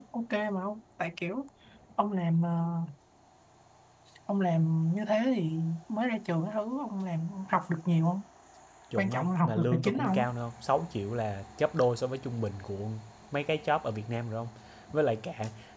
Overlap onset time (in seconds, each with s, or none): 9.0 s